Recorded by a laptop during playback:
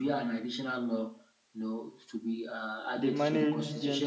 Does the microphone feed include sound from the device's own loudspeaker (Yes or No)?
Yes